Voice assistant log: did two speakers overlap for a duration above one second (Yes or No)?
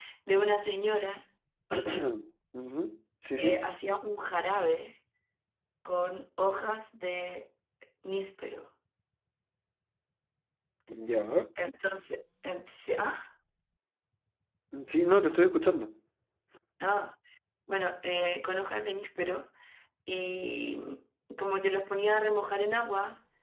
No